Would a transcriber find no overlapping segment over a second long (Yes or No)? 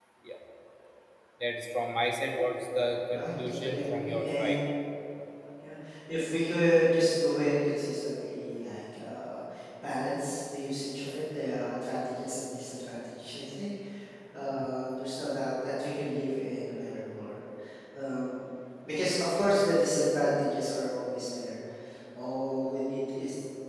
No